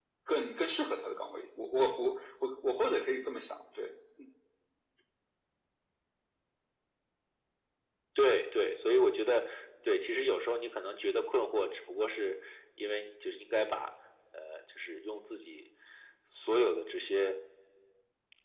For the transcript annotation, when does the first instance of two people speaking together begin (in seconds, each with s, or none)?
none